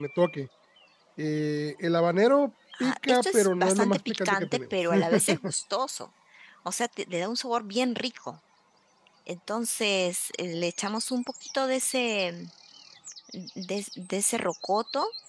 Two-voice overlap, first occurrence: 2.7 s

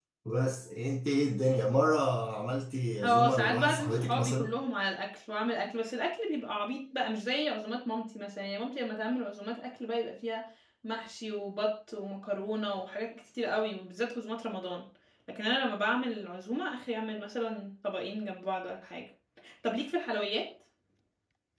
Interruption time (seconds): 3.0 s

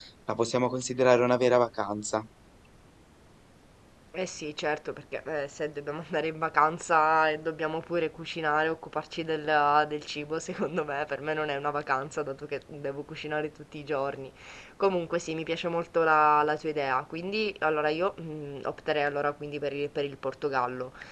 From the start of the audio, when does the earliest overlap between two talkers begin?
none

